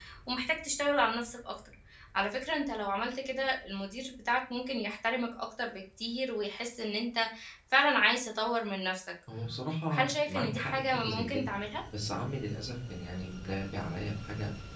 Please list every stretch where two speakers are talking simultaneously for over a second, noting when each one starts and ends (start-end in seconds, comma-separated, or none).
9.9-11.5